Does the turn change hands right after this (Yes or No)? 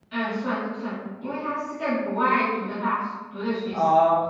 Yes